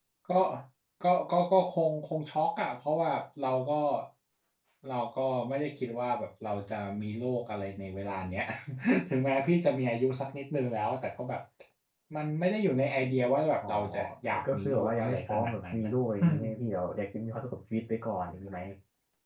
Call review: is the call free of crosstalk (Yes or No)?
No